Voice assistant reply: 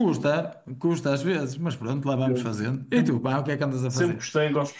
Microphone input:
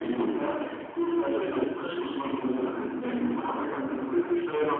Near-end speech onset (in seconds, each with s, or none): 1.3 s